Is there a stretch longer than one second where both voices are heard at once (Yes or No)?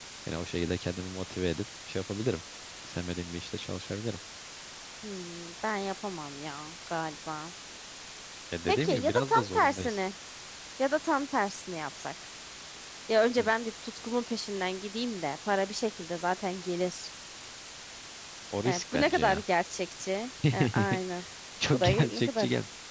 Yes